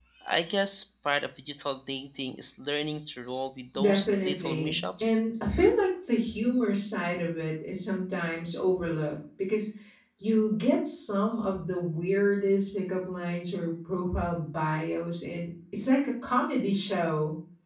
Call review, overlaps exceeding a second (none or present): present